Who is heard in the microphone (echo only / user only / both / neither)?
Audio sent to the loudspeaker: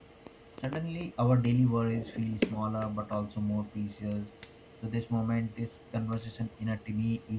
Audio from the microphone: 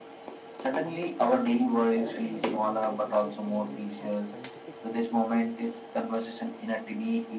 both